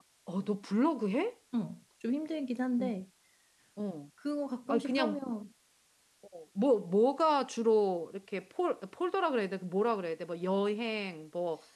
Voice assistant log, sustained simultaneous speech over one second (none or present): none